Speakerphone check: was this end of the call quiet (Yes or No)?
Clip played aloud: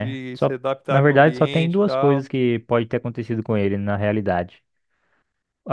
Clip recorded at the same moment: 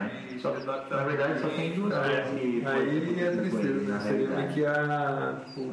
No